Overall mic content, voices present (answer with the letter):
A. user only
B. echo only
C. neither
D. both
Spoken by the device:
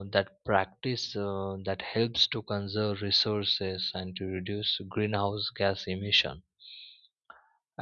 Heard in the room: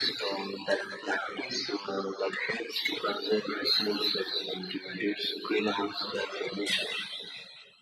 B